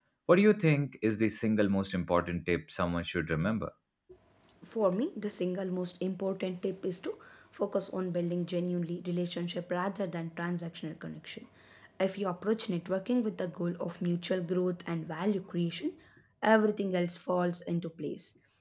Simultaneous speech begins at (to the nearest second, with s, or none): none